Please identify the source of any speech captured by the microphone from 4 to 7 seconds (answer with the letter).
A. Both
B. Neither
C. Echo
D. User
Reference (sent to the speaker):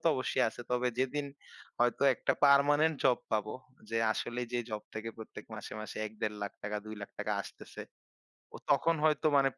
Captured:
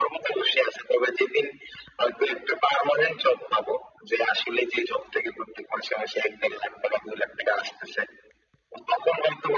C